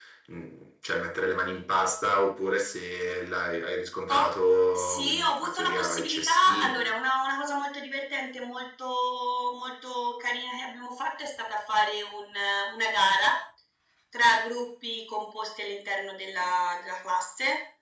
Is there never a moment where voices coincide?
No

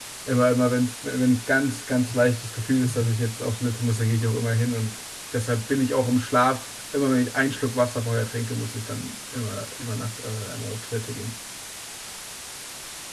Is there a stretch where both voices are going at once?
No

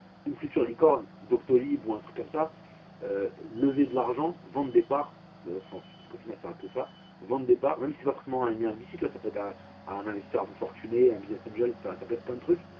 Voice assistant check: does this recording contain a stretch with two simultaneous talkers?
No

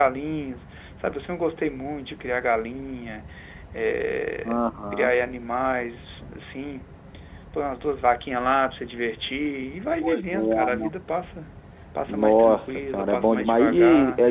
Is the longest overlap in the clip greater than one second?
Yes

